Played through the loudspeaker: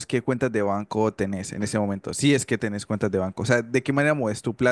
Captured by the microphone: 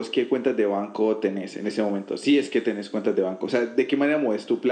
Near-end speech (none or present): none